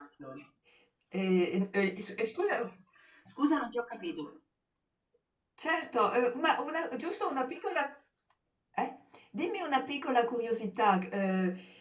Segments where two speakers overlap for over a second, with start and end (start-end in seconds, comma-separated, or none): none